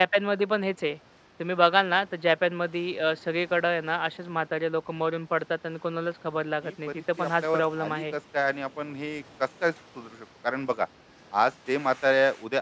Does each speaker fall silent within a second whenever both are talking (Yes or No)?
No